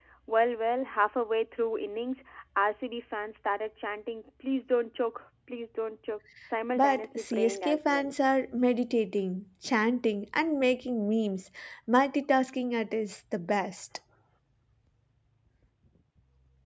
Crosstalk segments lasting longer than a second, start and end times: 6.8-8.1

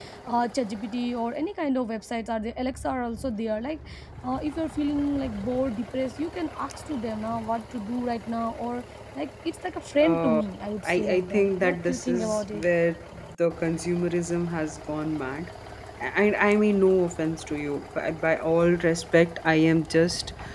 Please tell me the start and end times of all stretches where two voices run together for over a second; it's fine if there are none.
10.8-12.6

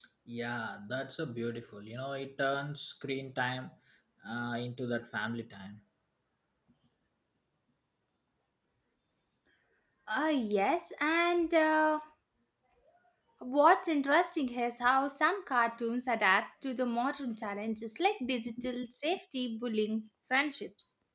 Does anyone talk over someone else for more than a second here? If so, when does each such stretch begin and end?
none

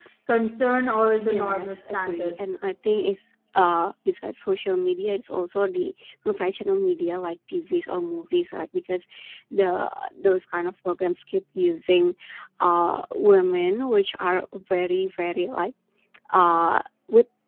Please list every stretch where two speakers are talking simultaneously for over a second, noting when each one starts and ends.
1.2-2.6

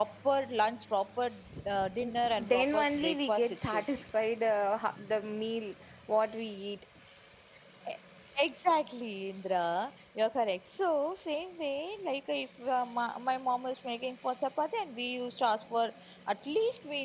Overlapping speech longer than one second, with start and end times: 2.5-3.8

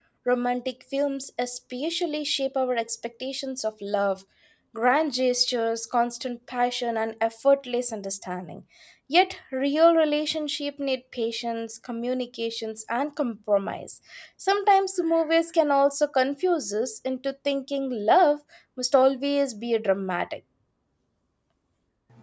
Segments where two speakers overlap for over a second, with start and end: none

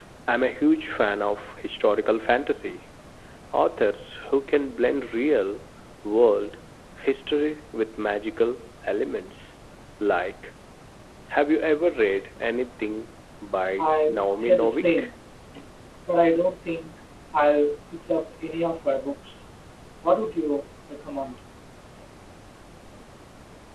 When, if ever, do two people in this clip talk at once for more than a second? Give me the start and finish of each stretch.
13.8-15.1

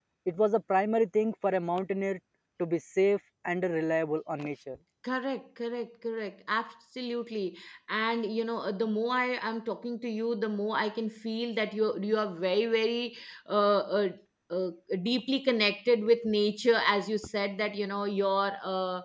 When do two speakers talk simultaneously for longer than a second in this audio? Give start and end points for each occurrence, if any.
none

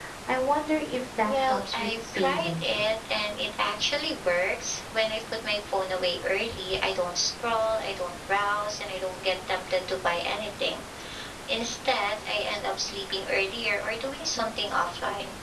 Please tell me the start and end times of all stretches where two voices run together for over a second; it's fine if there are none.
1.2-2.9

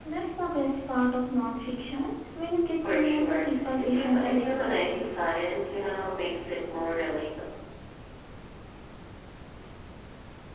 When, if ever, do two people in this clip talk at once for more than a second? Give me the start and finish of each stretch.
2.9-5.1

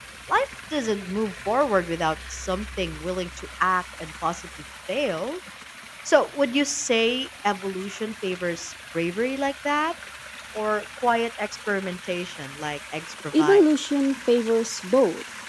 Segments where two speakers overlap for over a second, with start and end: none

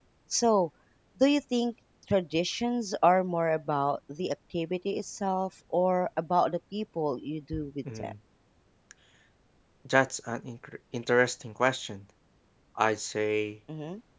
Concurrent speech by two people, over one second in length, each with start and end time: none

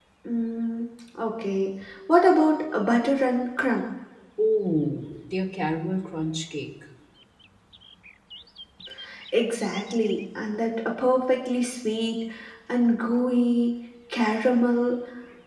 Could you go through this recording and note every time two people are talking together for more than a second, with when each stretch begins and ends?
none

